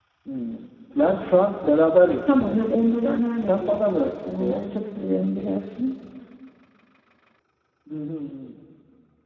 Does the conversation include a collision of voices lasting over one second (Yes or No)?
Yes